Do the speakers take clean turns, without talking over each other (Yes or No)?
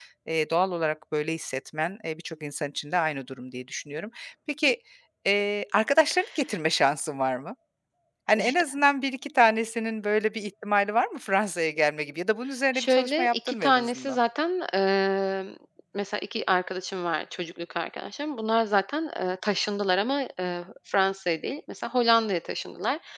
No